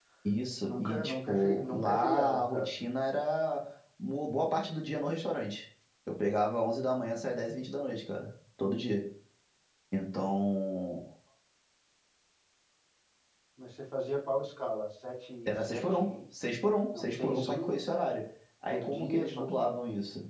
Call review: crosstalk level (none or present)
present